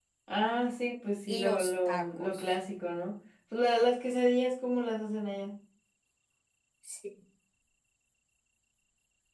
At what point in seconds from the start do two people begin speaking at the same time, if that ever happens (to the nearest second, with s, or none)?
1 s